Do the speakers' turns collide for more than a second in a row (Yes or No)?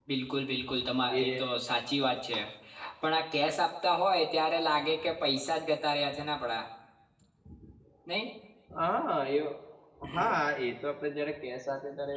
No